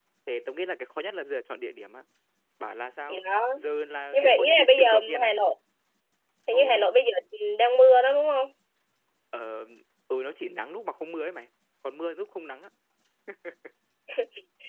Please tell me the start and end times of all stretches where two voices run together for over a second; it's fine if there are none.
4.1-5.4

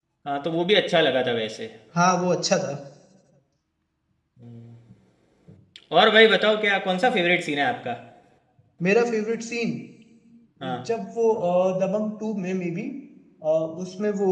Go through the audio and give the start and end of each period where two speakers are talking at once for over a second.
none

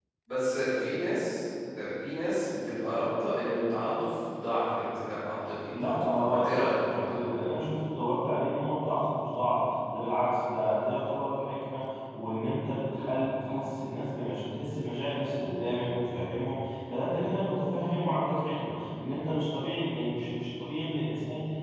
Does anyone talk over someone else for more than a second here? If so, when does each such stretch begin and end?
5.8-7.1

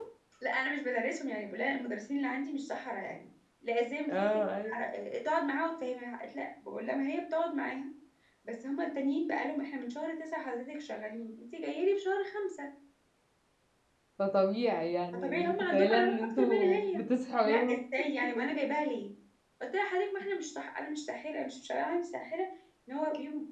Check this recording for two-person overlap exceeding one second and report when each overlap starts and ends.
15.1-17.0

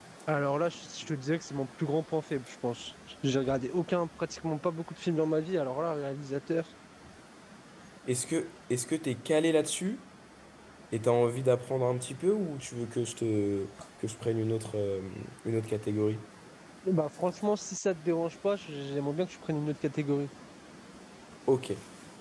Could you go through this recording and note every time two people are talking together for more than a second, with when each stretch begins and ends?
none

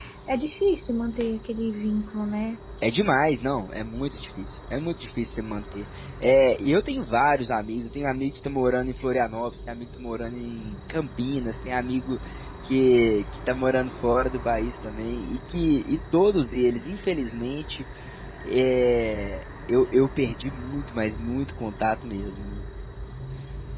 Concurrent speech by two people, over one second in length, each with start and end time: none

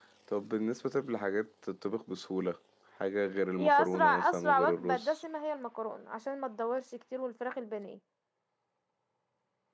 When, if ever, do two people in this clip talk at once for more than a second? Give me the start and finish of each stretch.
3.6-5.1

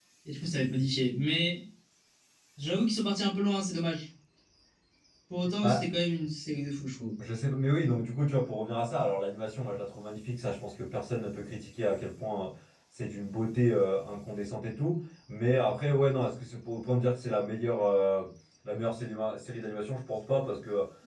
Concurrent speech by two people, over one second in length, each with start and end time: none

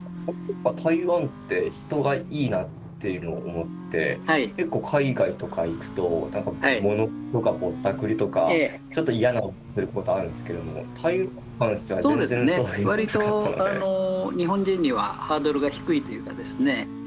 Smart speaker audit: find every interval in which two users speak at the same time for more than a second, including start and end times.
12.0-13.8

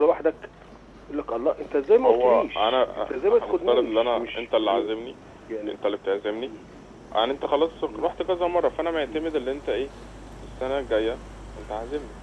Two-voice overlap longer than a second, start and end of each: 2.0-4.9

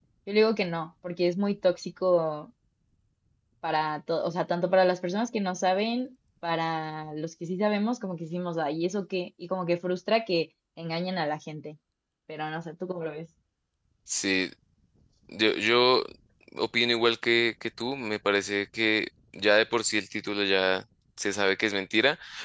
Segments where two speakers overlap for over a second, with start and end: none

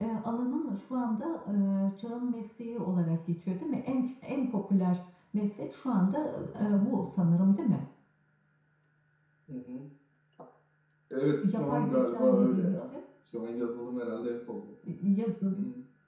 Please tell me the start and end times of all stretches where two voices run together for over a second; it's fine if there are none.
11.4-12.9

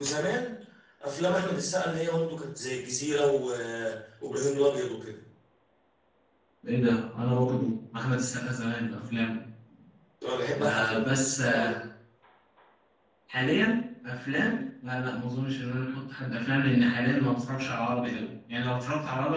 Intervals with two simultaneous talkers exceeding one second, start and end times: 10.6-11.8

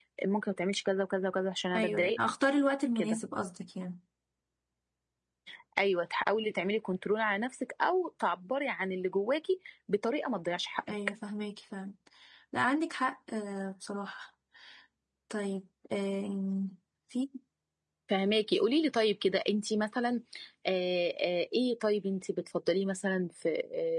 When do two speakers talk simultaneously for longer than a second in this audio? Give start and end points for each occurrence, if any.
none

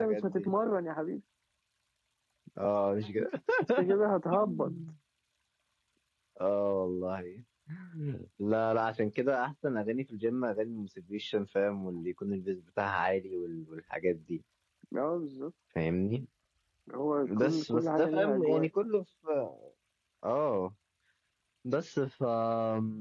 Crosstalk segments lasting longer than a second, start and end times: 17.4-18.7

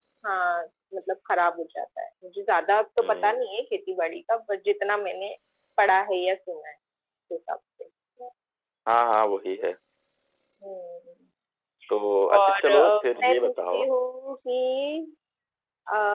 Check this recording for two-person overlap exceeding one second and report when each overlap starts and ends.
12.4-13.9

